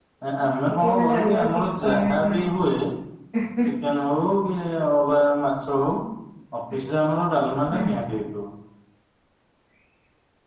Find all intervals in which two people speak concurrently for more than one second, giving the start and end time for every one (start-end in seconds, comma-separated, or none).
0.7-2.5